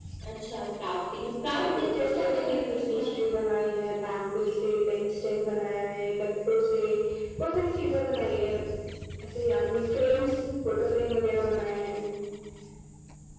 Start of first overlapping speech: 1.4 s

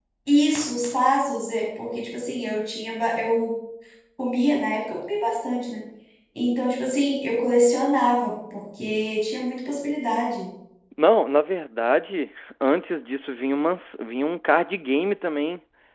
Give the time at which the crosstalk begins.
none

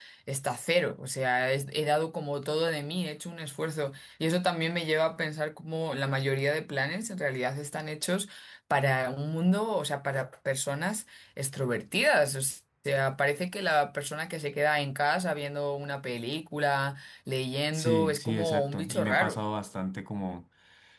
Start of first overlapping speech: 17.7 s

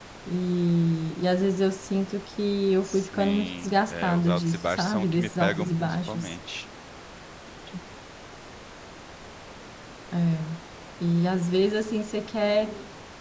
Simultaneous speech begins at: 2.8 s

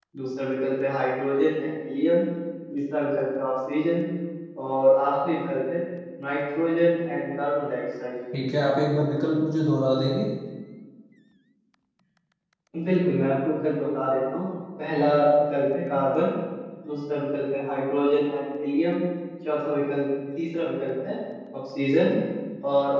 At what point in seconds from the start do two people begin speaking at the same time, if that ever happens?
none

